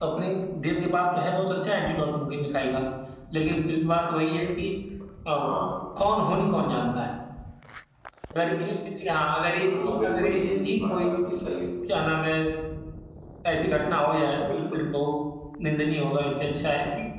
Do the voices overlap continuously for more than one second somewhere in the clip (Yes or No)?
Yes